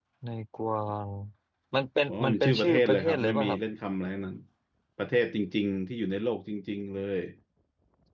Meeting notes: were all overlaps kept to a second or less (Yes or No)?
No